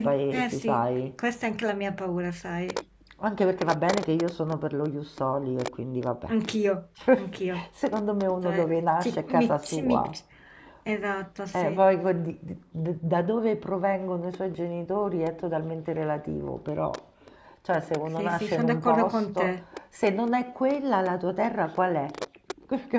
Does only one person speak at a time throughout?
No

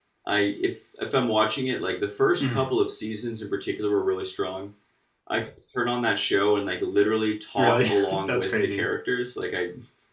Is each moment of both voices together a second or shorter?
No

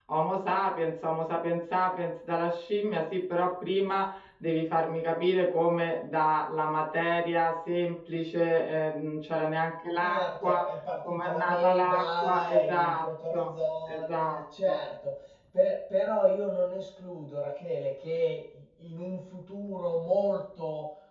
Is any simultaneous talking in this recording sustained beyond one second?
Yes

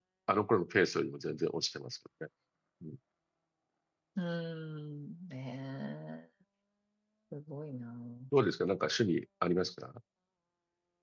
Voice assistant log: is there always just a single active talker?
Yes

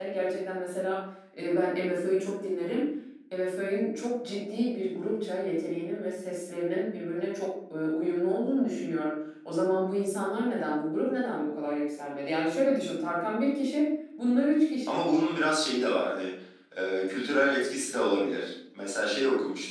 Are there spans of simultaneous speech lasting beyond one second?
No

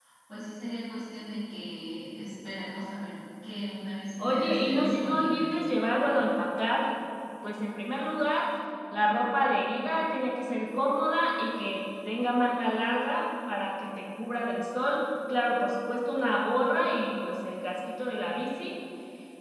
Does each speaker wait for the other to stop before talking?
No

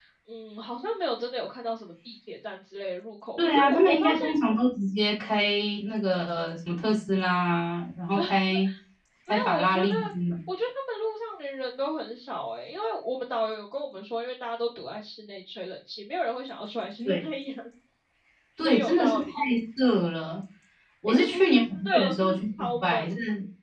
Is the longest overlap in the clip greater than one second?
Yes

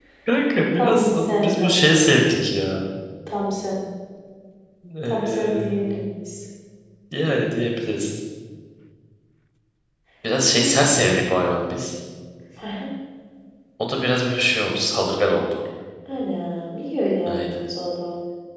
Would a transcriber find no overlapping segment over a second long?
No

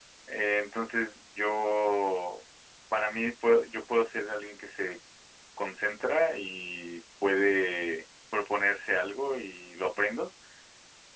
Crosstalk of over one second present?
No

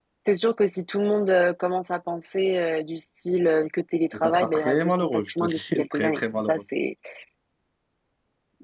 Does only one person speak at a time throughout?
No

